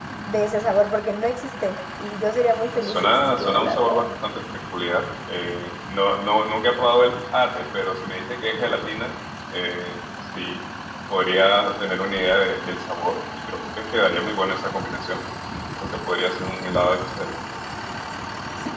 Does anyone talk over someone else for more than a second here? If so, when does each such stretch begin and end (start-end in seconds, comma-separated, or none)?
2.7-4.0